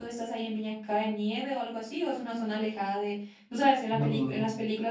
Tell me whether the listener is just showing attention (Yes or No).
Yes